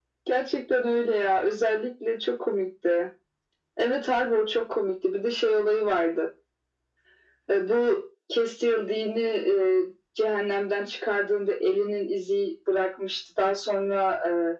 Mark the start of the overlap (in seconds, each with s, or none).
none